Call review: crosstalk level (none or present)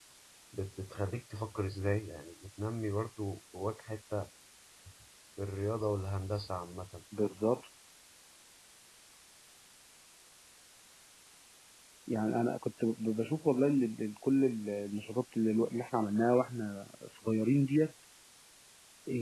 none